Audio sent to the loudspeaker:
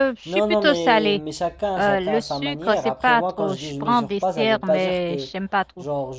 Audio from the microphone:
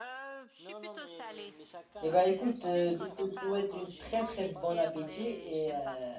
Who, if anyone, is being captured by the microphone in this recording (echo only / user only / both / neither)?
both